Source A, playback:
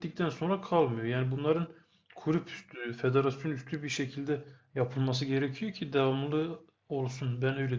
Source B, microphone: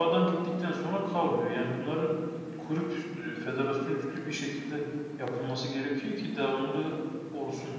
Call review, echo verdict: present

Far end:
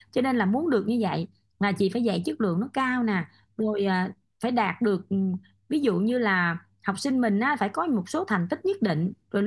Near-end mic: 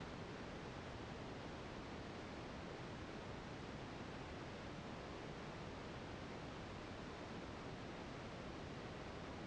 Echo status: none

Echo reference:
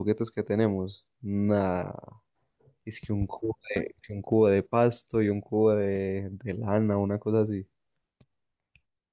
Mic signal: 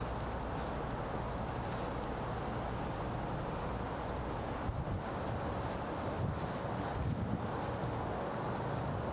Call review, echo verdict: none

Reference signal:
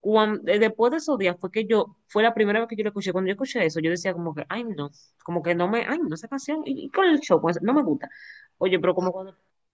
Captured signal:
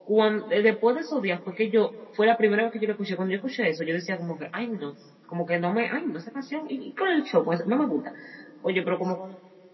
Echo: present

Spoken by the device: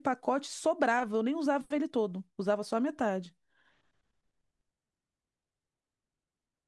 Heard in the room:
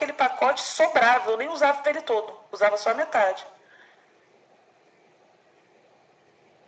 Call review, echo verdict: present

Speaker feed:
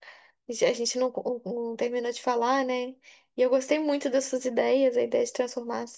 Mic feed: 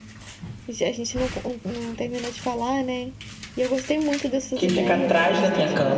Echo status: present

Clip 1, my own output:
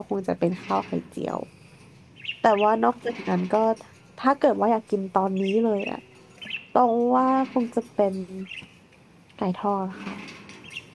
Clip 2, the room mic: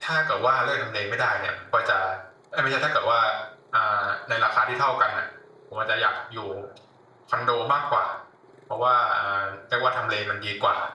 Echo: none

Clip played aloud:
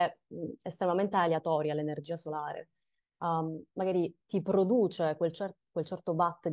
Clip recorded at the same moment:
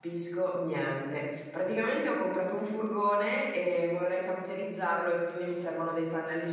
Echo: none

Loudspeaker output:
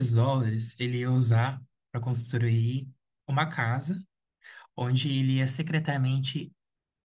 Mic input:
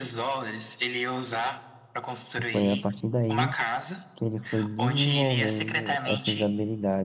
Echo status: present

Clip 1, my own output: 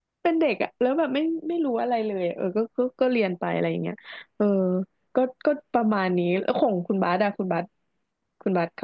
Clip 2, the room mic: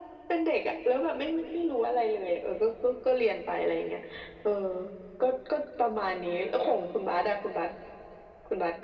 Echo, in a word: present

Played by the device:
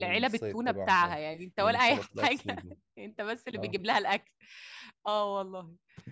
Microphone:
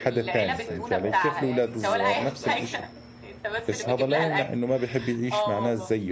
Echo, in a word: present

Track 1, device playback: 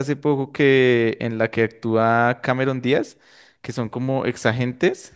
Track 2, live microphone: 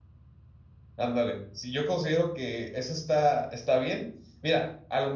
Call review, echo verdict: none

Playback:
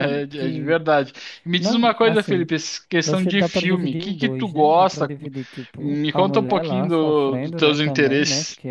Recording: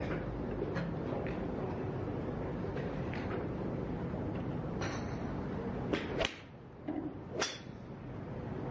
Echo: none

